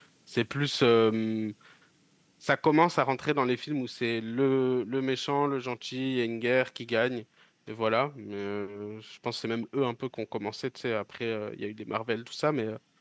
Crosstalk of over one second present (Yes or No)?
No